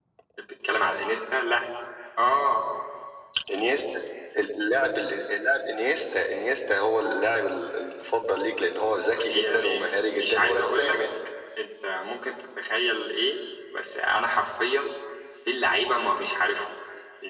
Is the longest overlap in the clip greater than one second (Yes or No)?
Yes